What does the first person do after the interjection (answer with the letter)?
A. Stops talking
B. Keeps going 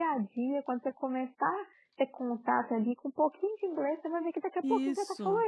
A